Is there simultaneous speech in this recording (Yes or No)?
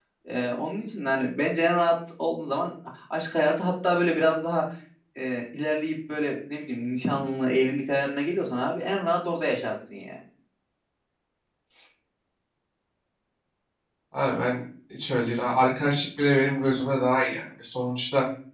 No